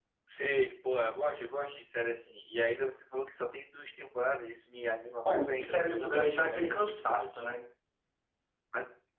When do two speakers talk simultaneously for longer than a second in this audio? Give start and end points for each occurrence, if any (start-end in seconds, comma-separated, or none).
5.2-7.4